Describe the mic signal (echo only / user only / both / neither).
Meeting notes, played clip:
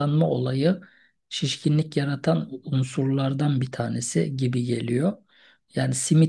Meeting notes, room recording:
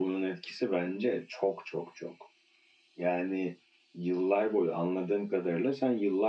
user only